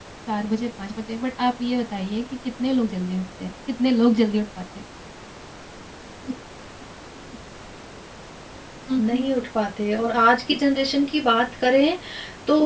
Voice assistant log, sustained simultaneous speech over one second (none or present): none